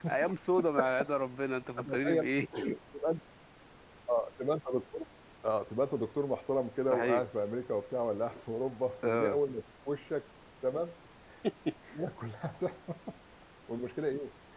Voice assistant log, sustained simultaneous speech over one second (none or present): none